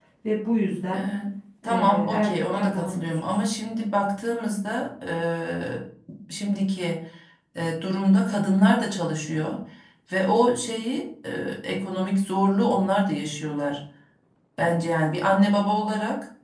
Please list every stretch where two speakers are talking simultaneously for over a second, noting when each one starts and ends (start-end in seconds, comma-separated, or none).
1.7-3.4